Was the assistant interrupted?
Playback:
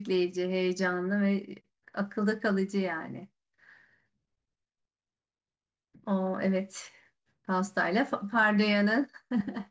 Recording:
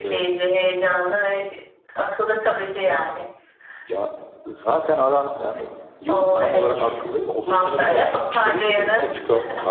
Yes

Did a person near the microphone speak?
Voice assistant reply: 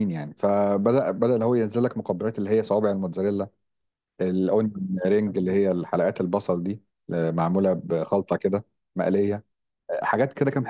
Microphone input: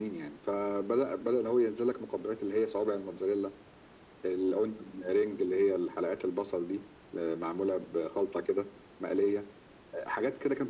No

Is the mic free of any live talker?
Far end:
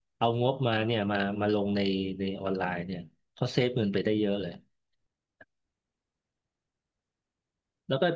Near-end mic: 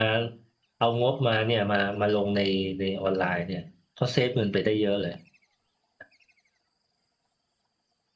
Yes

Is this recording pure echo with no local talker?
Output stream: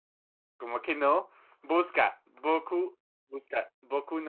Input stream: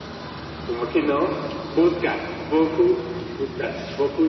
Yes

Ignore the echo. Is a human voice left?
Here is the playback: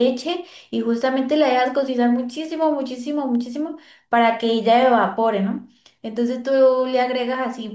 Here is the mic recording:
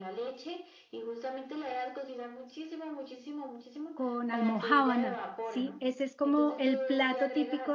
Yes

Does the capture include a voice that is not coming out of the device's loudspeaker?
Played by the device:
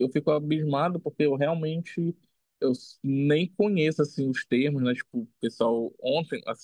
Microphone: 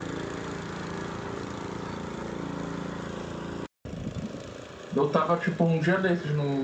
Yes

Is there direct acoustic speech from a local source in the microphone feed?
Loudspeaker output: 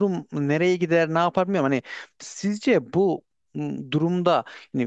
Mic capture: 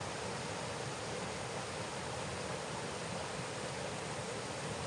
No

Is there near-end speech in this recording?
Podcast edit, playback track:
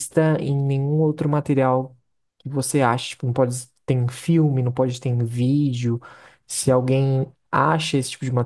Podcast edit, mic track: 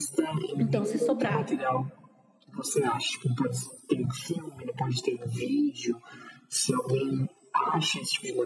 Yes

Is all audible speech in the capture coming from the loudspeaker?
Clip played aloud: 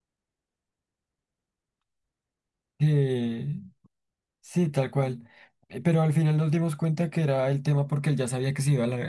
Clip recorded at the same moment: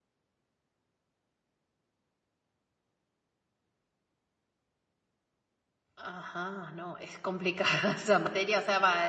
No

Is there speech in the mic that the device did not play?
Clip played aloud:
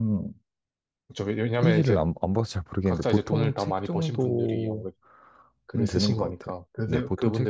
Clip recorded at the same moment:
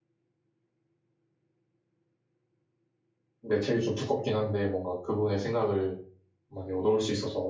Yes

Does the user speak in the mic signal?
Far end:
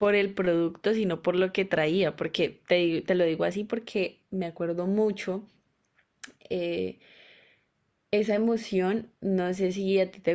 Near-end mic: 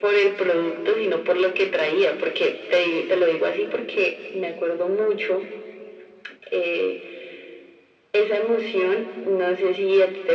No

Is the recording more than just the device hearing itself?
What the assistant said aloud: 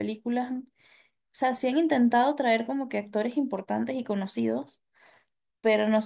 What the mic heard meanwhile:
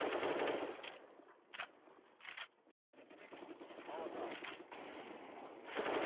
No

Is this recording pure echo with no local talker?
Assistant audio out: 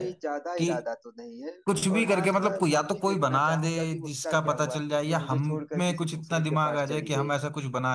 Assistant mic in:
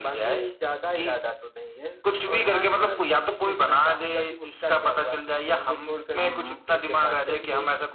No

